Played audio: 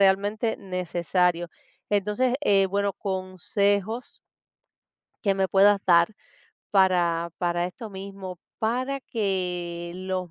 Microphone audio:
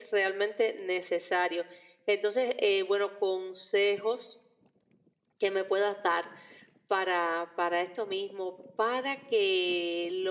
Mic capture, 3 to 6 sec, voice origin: echo only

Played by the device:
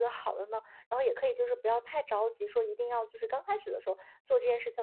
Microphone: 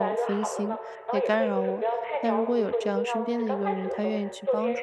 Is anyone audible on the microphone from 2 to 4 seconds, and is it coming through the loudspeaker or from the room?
both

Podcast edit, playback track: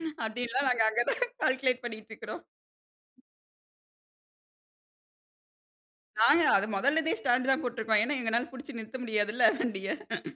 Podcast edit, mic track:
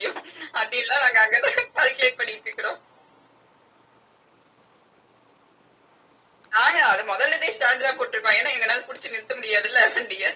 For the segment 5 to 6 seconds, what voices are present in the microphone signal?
neither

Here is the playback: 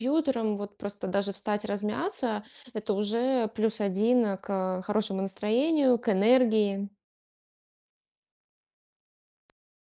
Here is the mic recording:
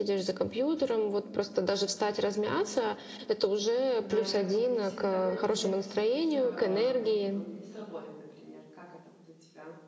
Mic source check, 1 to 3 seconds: echo only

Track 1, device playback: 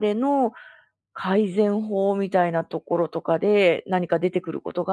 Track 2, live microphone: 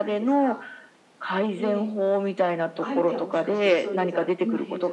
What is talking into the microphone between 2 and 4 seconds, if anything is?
both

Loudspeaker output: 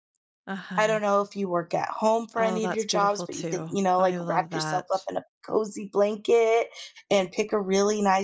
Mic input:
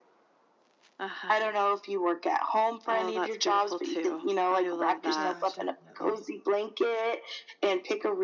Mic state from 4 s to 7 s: both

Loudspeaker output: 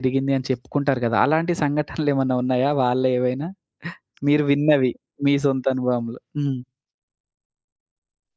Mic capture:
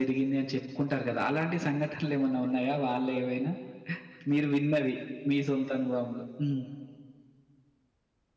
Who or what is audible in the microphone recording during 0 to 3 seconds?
echo only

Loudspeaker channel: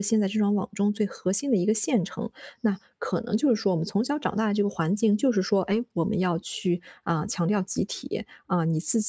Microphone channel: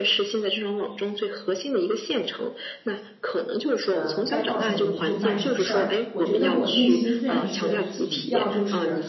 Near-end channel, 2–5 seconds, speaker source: both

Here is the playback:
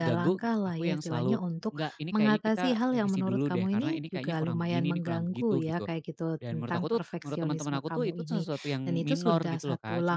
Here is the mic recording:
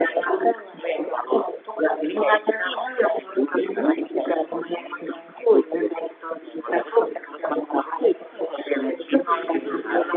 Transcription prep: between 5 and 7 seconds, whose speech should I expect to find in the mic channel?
echo only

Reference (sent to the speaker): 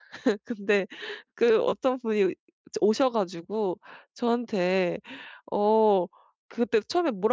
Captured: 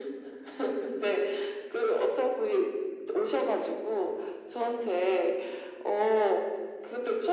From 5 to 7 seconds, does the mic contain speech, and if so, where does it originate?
echo only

